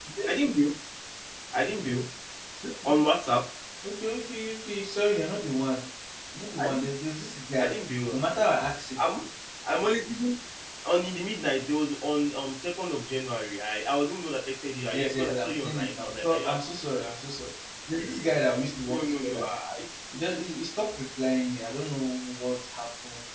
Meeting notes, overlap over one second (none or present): present